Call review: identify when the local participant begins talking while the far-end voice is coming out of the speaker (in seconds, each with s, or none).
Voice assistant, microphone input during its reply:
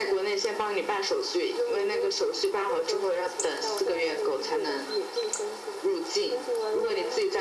none